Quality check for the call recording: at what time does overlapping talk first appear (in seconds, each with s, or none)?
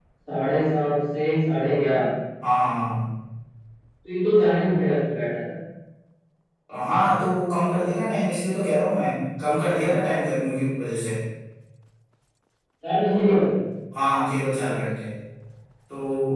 none